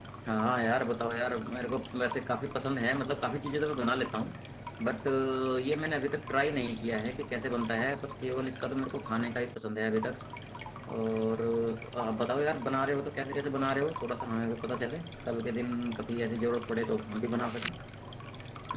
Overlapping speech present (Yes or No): No